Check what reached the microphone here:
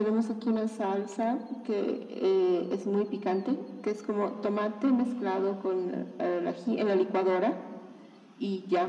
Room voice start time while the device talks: none

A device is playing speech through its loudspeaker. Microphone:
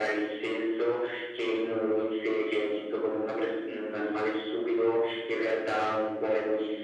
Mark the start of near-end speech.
none

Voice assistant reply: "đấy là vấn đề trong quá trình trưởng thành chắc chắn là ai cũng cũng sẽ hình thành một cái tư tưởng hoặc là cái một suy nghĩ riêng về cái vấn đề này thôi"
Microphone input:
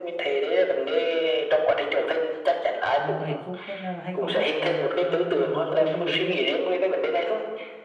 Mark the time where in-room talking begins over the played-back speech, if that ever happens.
3 s

